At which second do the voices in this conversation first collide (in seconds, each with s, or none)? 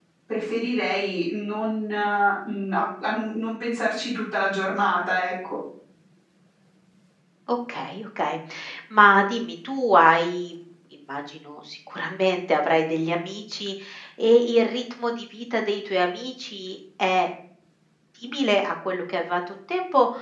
none